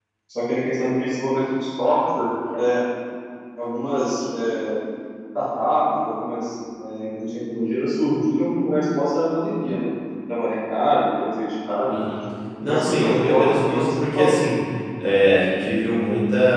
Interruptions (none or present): present